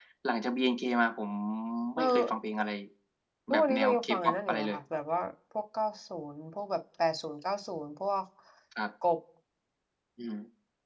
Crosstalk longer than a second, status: present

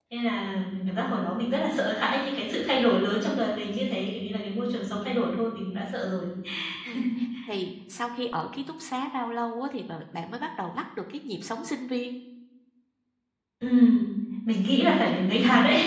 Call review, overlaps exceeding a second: none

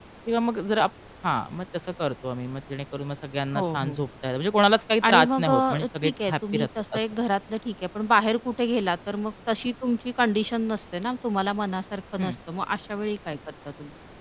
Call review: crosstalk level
present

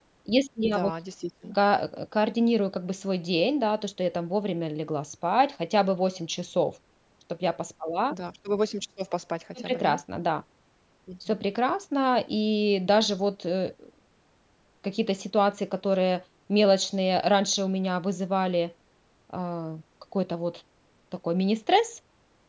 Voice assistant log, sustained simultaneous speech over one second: none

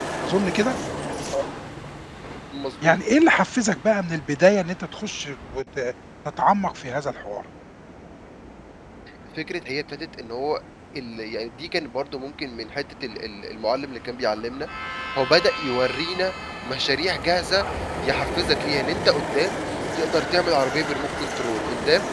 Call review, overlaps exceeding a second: none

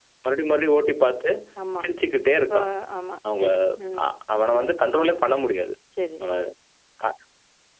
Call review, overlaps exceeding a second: none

